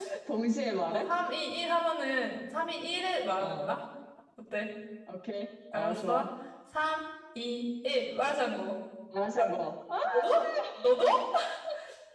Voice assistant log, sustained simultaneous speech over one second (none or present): none